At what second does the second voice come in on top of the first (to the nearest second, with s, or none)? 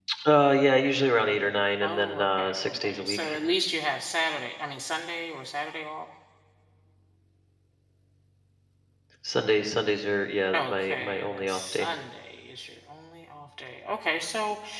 2 s